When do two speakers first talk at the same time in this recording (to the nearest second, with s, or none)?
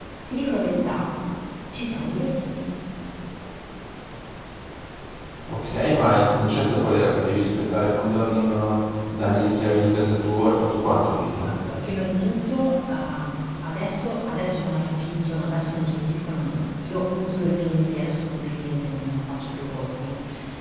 none